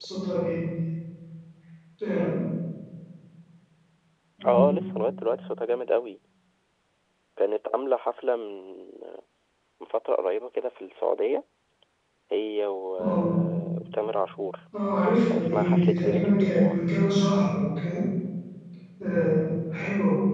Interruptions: present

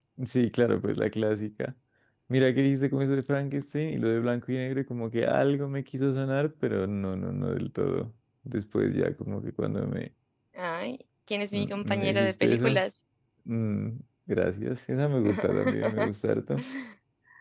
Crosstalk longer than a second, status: present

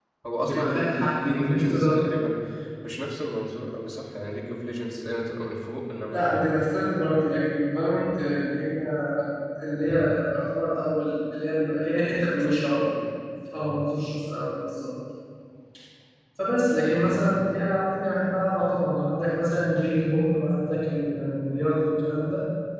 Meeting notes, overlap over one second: present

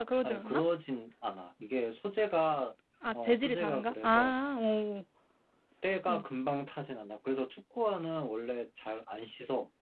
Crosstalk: present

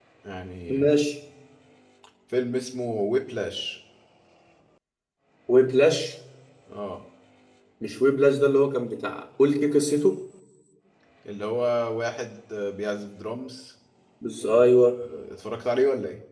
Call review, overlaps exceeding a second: none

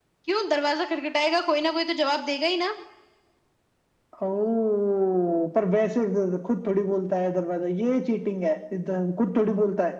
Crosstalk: none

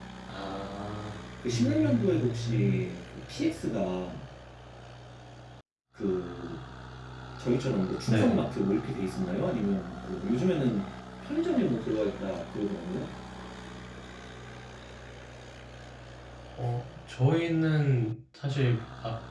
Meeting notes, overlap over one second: present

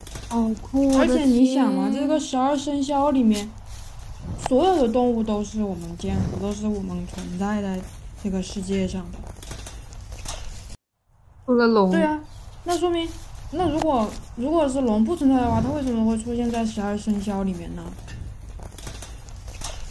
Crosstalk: present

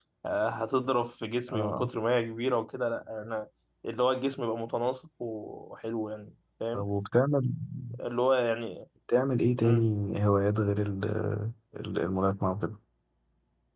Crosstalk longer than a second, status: none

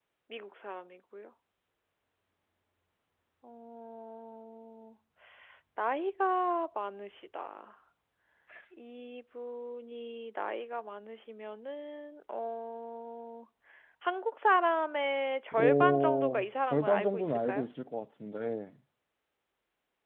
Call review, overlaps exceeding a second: present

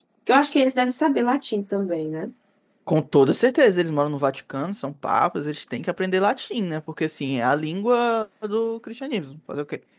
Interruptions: none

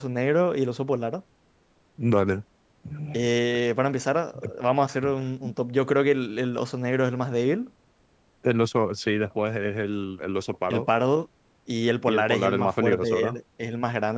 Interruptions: present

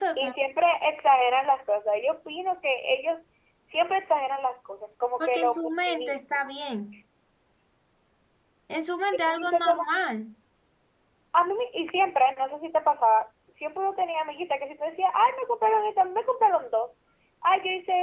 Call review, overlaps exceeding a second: present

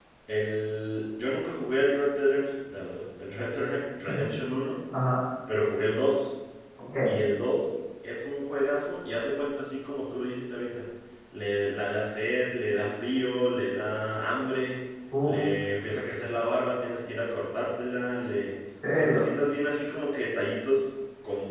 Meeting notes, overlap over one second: none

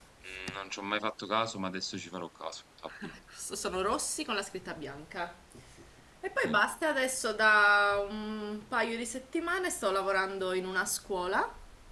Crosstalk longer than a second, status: none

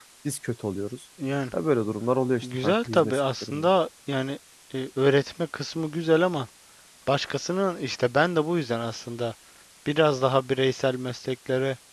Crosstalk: present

